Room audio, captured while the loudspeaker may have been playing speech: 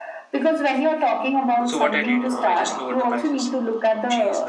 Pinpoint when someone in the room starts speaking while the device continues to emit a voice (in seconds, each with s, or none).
1.7 s